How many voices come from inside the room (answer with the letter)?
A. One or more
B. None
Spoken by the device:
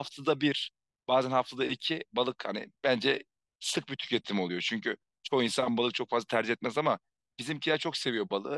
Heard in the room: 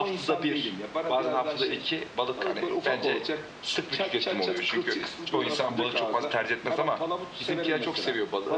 A